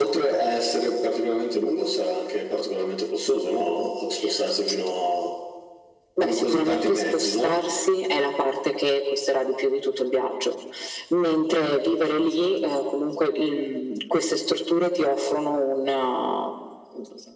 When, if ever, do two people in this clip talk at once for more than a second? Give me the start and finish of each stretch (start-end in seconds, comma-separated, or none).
6.2-7.6